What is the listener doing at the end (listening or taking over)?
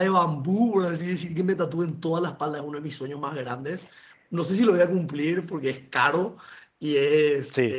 listening